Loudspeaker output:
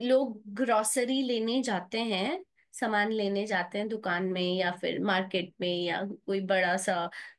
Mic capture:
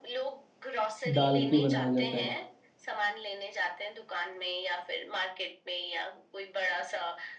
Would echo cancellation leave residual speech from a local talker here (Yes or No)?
Yes